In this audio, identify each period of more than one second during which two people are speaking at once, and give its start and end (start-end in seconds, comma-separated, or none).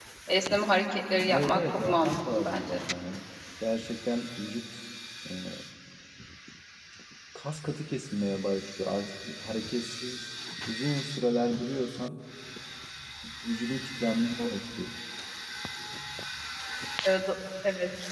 1.3-2.8